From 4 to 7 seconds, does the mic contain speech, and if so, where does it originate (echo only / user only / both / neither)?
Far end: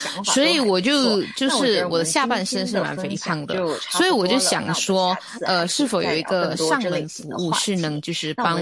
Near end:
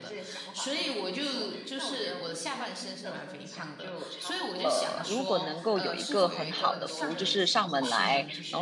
both